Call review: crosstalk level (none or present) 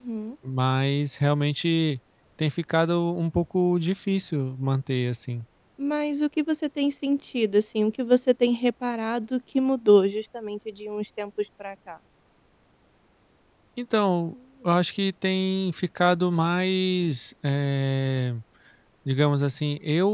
none